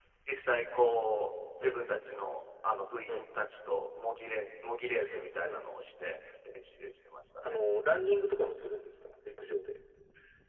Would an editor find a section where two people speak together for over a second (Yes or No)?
No